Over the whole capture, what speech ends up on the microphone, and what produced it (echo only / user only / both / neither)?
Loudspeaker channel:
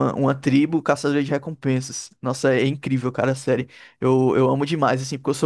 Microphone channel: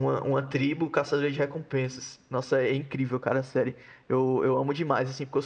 echo only